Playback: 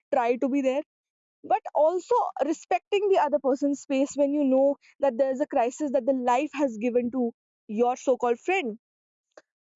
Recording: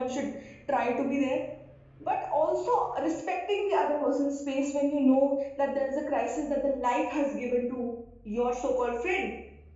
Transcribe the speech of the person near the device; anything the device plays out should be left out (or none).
none